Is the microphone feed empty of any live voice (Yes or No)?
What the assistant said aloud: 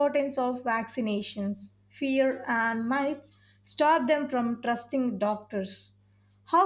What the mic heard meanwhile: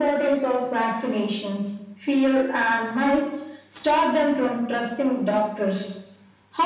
Yes